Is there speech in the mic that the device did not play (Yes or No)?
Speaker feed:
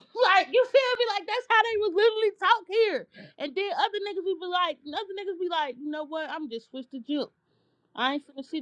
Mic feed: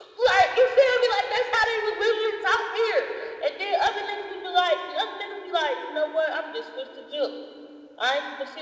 No